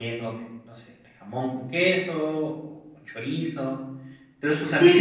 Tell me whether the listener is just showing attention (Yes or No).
No